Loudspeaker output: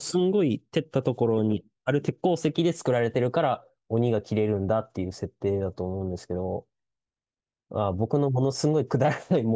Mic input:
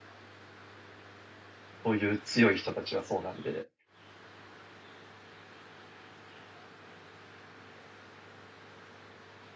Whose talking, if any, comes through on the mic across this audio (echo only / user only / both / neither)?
user only